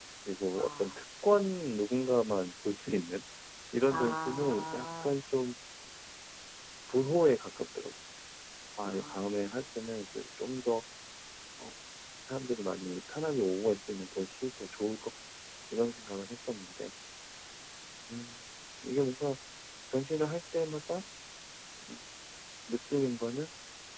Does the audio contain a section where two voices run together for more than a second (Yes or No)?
Yes